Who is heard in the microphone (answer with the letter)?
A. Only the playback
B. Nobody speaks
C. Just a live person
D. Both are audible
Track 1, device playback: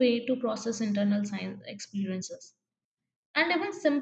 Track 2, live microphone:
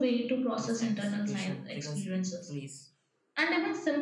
D